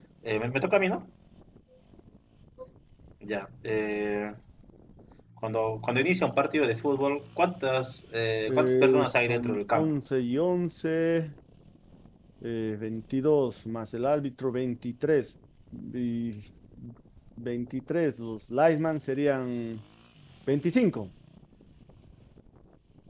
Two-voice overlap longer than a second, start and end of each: 8.5-9.9

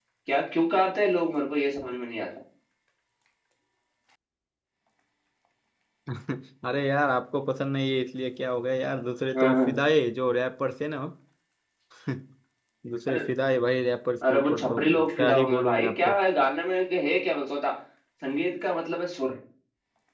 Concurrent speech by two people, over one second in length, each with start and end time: 14.3-16.2

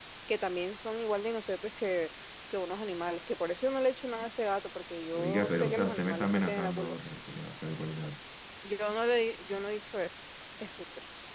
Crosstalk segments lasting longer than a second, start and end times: 5.2-7.0

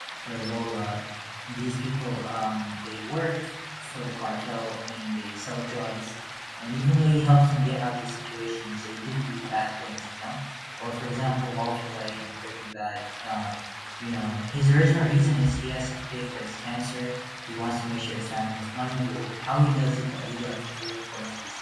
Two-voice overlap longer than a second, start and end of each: none

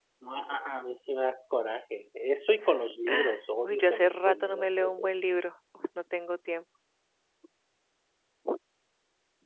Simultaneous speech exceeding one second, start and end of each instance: 3.6-5.0

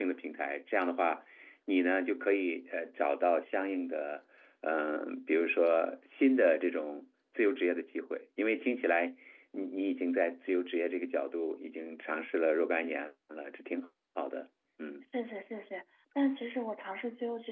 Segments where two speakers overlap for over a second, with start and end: none

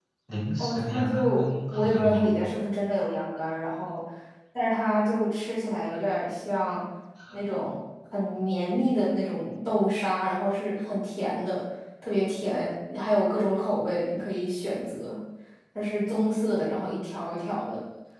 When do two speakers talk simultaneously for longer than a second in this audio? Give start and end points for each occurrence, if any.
0.6-2.4

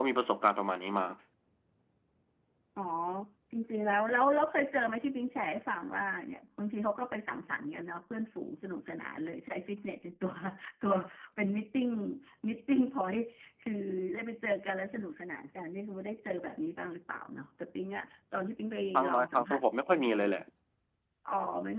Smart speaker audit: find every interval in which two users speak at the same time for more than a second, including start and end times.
19.0-20.2

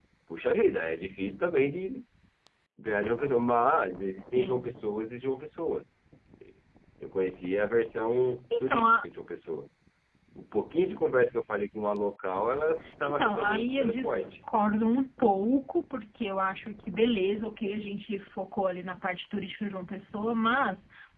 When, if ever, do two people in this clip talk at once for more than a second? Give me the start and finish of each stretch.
13.0-14.2

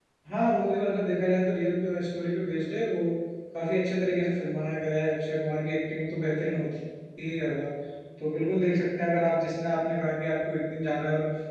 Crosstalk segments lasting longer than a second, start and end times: none

